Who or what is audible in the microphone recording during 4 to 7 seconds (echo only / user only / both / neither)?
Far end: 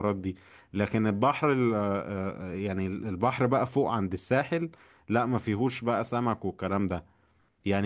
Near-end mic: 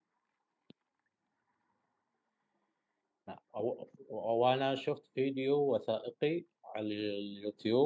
user only